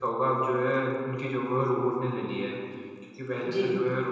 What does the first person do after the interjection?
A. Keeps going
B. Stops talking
A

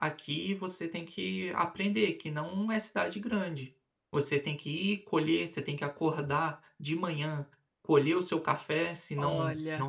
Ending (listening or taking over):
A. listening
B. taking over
A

